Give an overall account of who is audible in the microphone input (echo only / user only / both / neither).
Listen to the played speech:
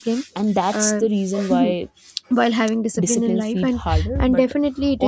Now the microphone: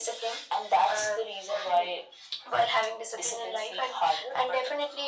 echo only